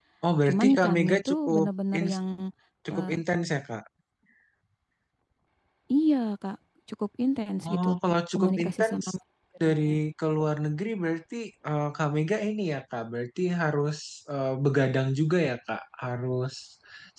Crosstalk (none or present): present